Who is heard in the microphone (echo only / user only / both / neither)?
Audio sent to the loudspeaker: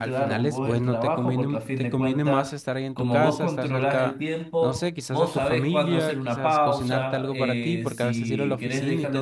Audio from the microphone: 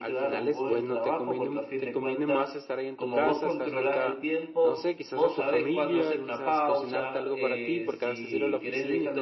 echo only